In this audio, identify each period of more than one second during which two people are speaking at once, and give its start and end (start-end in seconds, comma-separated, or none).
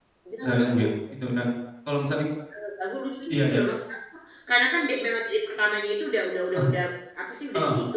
none